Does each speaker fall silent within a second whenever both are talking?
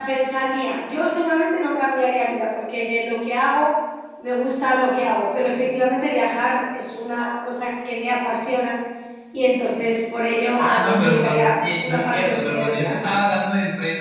No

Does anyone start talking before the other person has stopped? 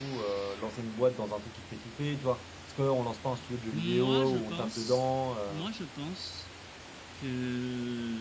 Yes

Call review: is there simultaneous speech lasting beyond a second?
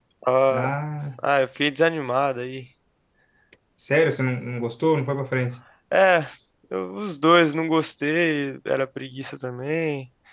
No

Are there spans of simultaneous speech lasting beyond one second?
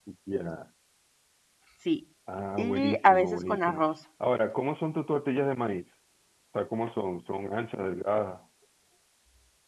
Yes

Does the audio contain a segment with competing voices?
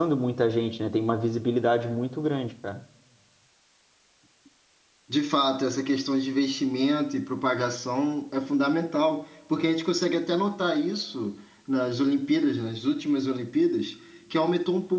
No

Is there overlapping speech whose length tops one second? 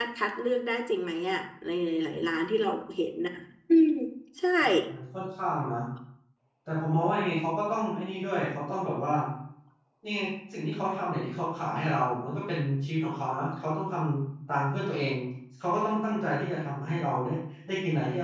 No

